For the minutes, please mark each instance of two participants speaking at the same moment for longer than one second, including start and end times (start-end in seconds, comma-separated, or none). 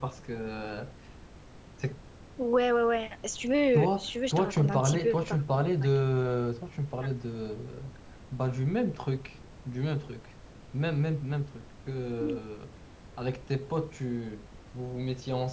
3.7-5.4